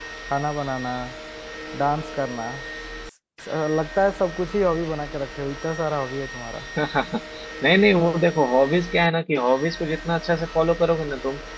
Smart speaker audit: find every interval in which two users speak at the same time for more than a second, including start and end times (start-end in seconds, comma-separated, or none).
none